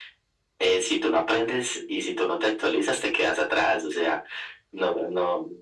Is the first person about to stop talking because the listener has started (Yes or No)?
No